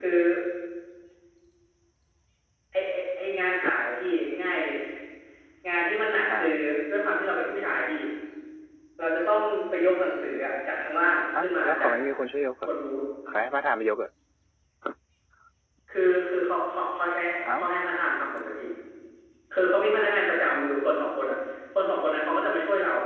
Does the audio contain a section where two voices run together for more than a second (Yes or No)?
No